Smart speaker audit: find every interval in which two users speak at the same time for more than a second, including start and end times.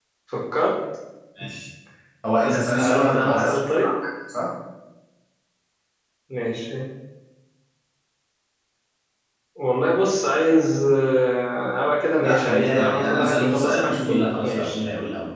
2.4-3.9, 12.2-14.8

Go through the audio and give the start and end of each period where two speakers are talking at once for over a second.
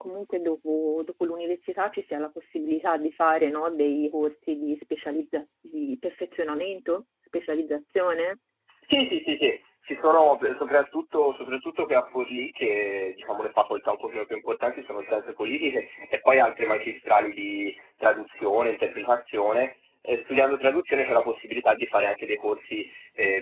none

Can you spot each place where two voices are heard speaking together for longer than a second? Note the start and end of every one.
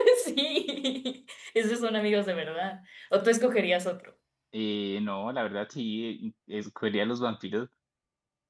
none

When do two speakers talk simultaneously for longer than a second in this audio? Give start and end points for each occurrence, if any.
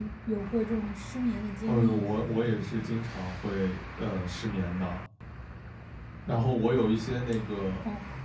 none

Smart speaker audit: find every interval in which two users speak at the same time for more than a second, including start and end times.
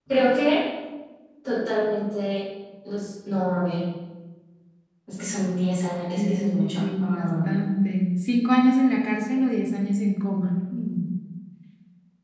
6.2-7.6

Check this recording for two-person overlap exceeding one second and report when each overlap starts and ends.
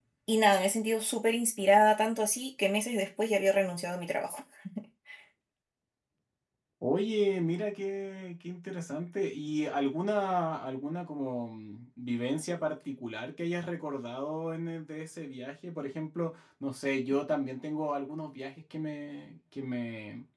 none

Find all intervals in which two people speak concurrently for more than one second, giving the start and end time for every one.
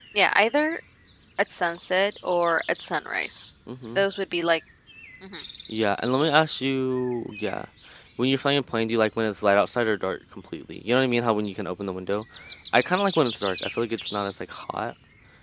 none

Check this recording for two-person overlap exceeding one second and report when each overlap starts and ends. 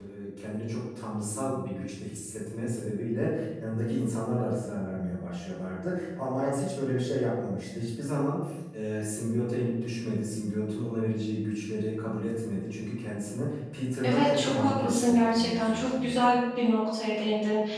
14.0-16.2

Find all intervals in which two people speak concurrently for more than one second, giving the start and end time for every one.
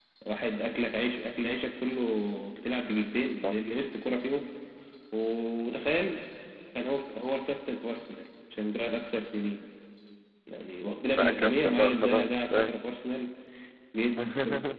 11.2-12.7

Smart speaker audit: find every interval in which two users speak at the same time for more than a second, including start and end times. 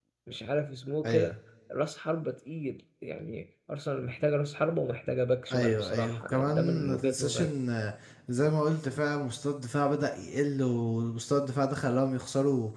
5.5-7.5

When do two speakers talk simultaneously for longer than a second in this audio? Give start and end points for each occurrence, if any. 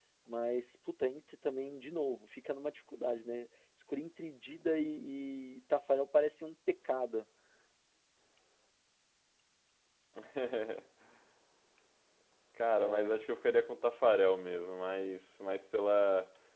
none

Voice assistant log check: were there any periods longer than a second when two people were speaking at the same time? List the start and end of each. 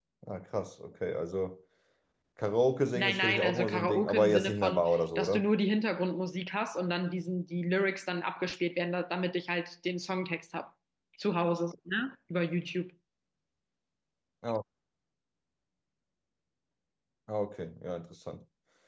3.0-5.5

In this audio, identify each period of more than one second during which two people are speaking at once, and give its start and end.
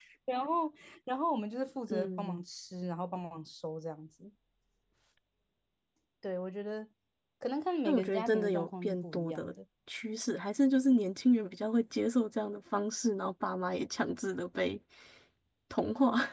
7.8-9.5

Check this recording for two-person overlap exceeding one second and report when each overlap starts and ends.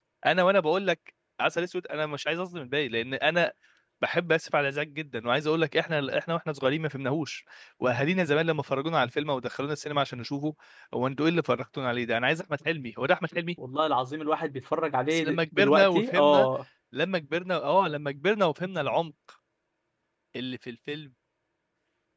15.1-16.5

